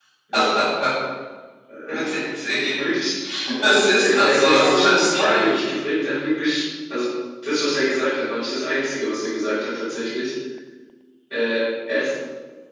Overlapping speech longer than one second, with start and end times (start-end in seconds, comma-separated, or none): 4.0-5.5